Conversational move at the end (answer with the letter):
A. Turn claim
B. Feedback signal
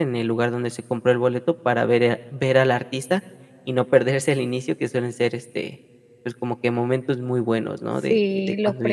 A